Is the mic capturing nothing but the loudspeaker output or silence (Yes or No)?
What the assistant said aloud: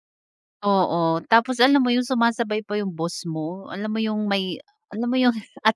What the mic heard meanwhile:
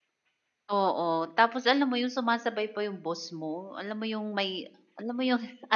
Yes